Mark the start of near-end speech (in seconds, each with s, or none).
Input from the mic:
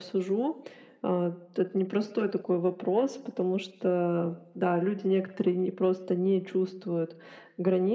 none